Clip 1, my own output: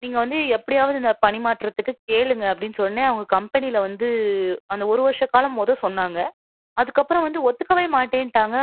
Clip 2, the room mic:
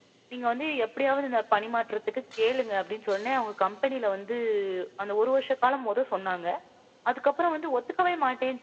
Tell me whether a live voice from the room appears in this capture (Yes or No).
No